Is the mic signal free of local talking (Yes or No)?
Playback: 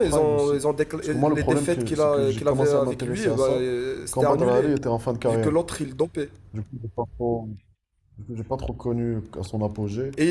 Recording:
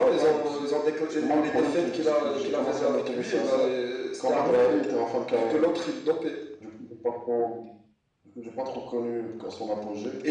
Yes